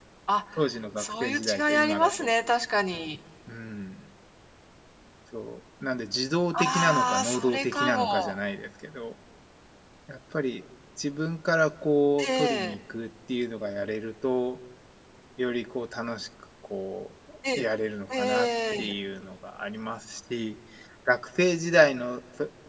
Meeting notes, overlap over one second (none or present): present